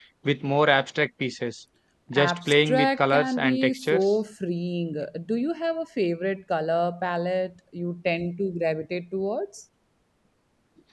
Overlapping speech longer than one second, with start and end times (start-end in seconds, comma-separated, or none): 2.1-4.1